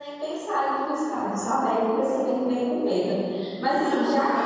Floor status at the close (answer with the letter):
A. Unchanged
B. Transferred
B